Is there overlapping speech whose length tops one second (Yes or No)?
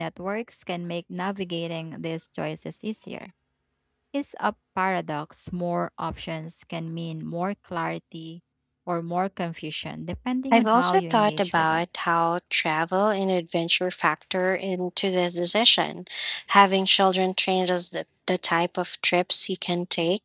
Yes